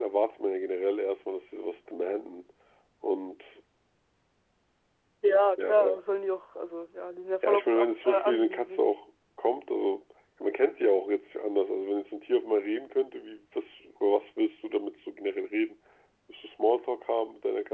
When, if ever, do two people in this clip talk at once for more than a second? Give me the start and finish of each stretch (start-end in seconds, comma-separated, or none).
7.4-8.8